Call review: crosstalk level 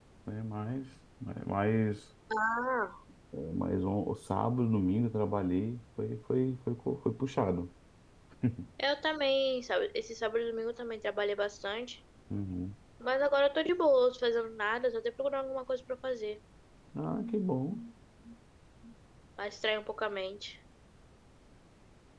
none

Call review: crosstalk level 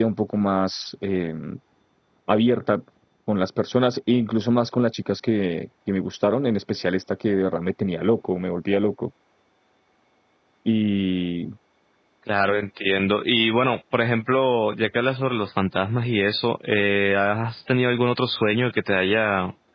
none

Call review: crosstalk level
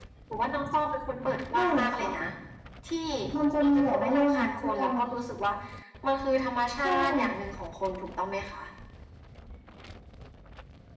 present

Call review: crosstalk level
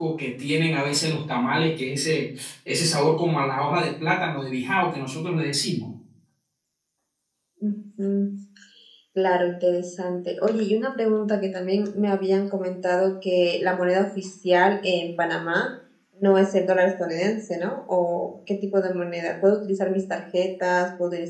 none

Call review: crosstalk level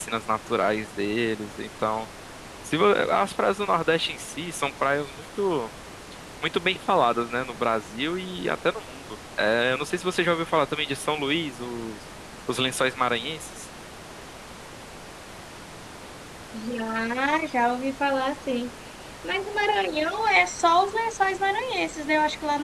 none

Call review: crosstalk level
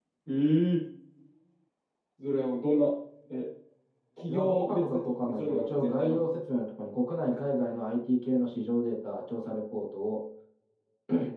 present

